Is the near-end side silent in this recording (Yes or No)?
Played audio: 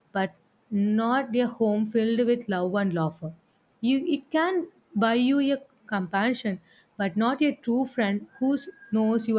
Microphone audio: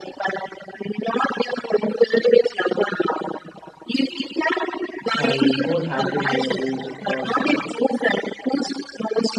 No